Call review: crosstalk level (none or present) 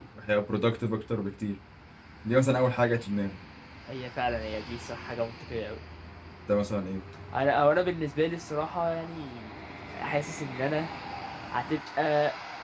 none